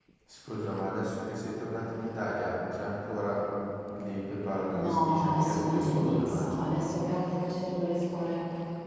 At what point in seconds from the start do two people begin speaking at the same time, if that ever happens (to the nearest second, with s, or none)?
5 s